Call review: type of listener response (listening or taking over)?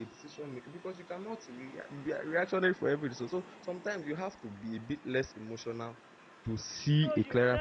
taking over